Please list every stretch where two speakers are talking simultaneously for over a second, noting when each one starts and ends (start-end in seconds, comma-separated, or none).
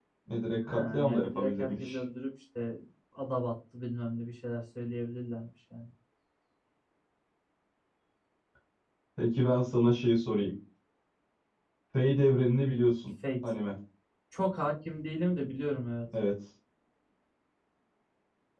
0.6-2.0